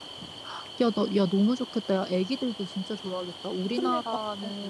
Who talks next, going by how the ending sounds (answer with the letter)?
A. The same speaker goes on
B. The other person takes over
A